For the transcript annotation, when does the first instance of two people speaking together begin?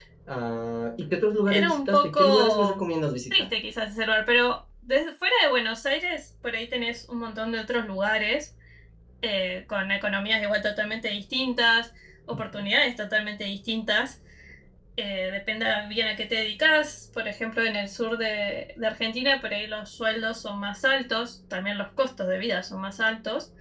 1.5 s

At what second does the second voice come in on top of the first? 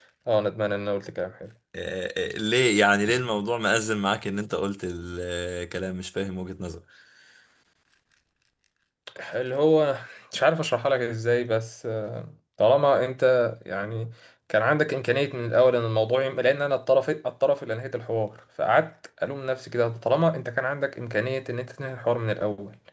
none

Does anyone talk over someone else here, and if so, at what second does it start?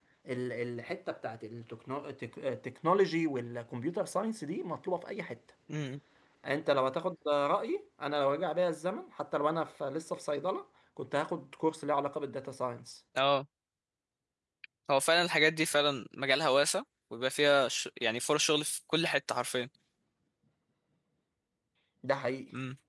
none

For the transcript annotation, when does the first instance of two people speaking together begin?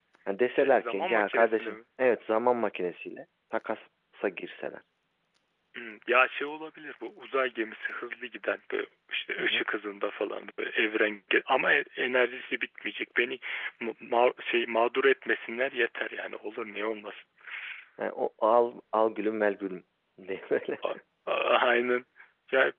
0.5 s

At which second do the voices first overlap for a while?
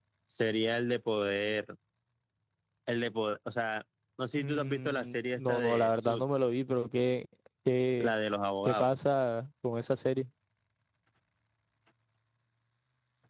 4.4 s

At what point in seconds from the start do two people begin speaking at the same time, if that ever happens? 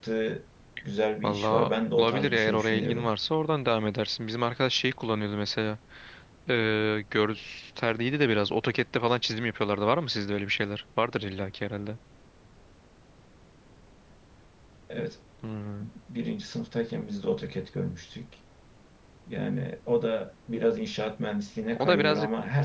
1.2 s

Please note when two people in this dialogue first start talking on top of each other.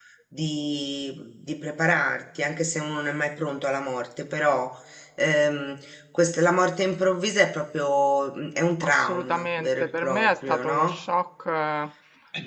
8.8 s

